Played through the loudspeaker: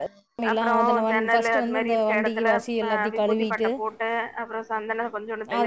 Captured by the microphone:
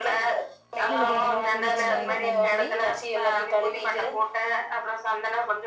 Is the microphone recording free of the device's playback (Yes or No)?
No